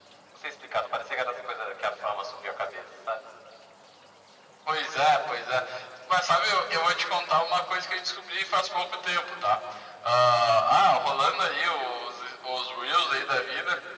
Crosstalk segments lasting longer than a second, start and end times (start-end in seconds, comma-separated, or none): none